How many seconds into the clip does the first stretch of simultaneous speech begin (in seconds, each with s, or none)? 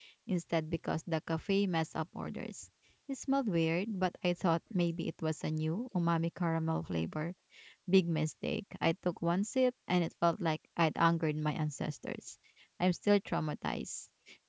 none